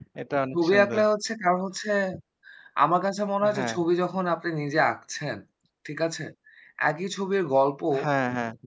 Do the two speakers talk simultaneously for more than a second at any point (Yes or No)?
No